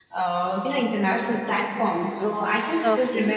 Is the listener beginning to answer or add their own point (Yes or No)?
No